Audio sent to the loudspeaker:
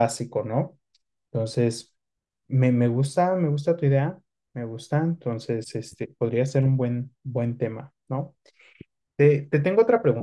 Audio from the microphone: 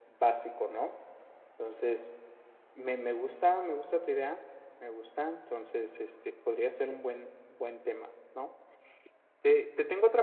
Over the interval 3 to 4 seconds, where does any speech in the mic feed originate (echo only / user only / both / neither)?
echo only